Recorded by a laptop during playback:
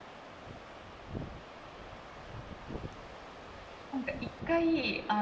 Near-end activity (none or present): present